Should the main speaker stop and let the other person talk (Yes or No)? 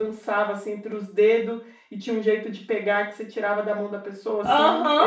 Yes